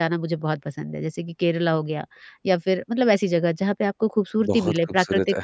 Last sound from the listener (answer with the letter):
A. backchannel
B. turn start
B